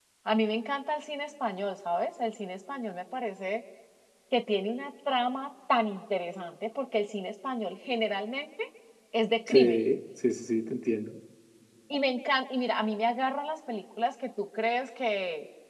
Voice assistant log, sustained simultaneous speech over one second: none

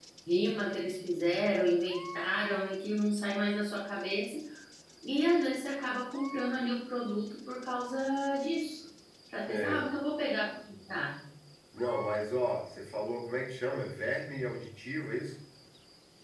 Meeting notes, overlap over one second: none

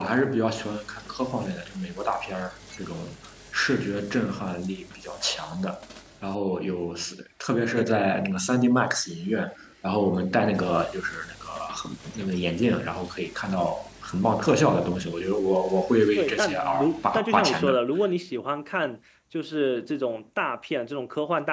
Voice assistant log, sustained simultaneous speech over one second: present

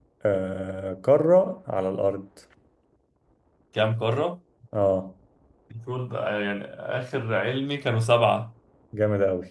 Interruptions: none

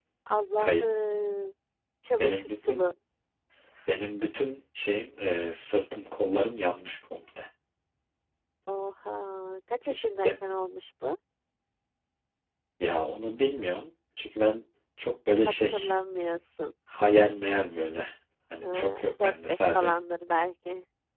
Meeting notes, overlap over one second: present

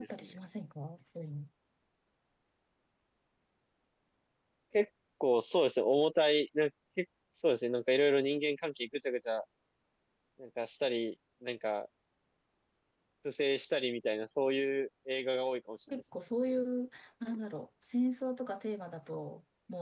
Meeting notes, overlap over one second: none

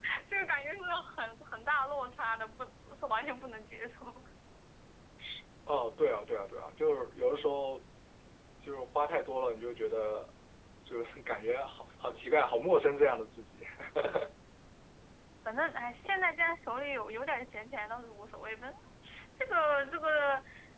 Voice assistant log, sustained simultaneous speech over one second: none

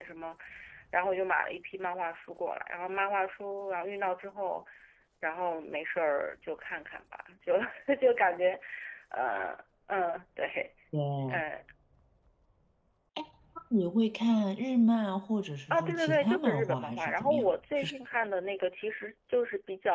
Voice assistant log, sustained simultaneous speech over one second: present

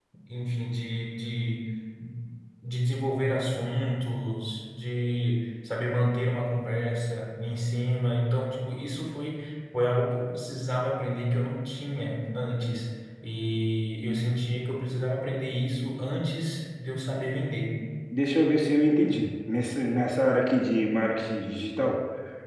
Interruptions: none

